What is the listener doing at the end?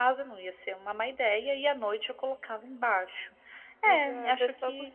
taking over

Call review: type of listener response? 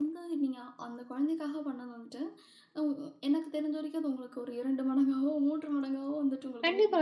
taking over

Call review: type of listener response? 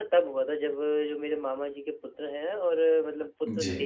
listening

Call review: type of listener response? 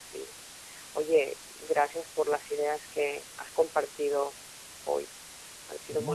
taking over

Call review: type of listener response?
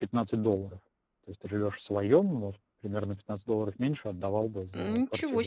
taking over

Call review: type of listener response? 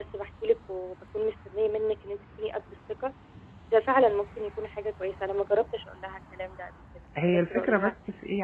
taking over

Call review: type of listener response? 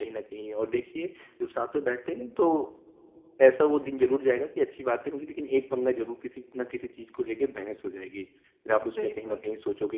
listening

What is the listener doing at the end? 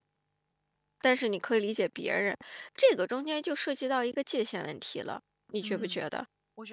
taking over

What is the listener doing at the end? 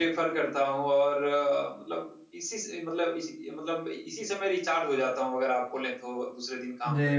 taking over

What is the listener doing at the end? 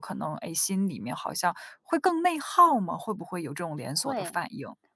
taking over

